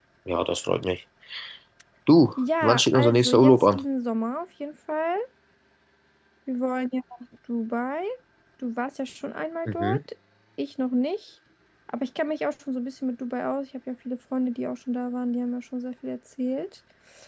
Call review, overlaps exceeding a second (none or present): present